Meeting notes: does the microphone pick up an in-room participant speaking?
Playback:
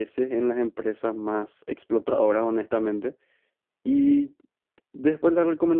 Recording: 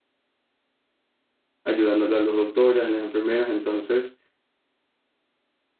Yes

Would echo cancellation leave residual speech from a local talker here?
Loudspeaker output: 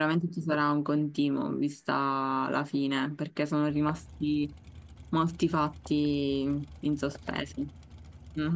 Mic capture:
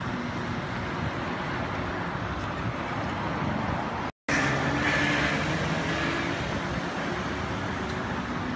No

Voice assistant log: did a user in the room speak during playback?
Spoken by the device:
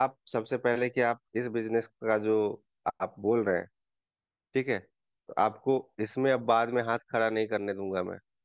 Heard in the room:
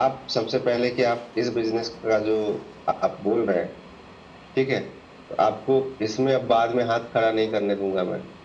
No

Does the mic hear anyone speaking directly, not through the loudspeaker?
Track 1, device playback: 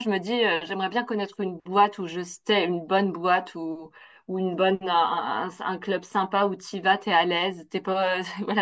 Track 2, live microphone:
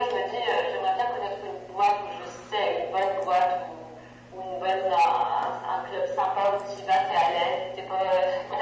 No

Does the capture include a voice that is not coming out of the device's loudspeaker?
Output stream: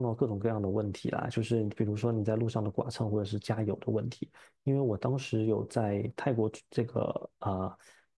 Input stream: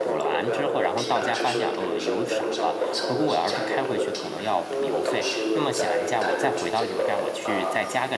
Yes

